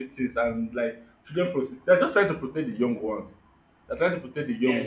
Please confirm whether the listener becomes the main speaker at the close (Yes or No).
Yes